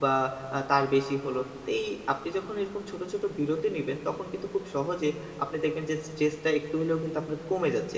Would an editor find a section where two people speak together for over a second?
No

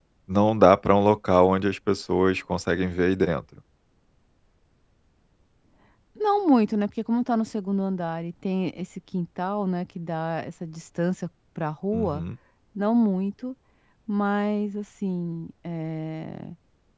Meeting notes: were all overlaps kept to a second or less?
Yes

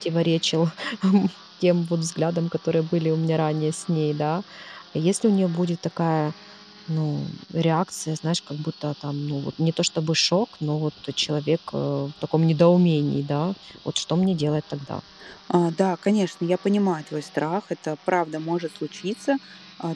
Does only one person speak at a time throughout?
Yes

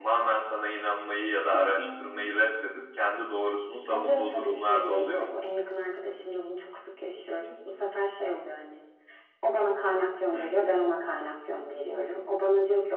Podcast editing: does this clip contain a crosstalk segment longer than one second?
Yes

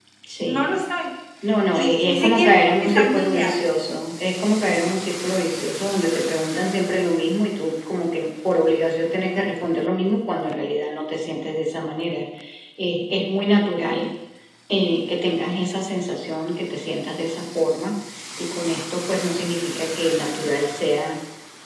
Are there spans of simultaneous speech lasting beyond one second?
Yes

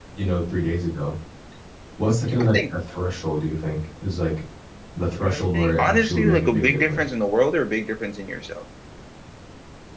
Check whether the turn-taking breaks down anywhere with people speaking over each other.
Yes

